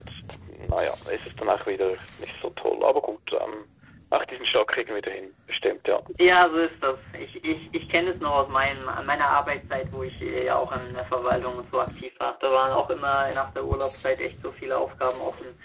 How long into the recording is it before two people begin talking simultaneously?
none

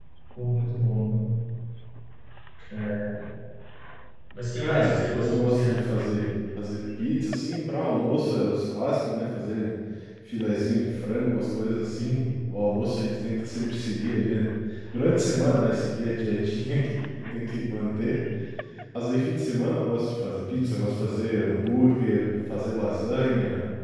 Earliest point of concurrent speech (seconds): 4.6 s

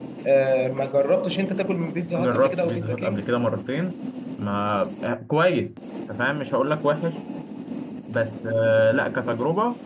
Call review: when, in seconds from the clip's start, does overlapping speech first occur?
2.0 s

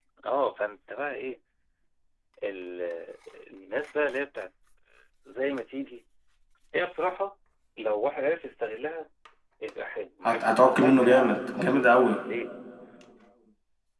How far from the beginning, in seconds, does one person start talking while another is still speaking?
10.2 s

